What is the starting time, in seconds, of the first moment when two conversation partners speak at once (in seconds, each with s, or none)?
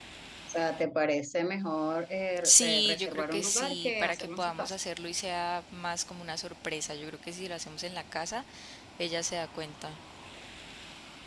2.4 s